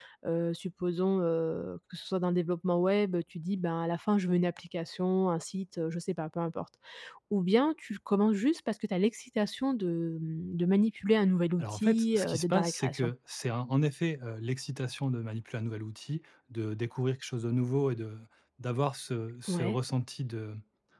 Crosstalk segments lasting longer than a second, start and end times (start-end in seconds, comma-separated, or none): 11.6-13.1